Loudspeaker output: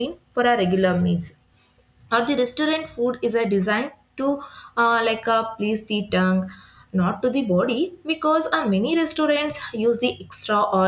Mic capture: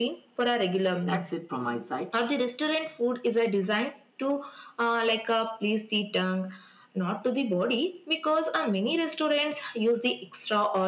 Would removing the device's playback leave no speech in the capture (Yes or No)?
No